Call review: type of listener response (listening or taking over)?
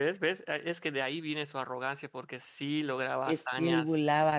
taking over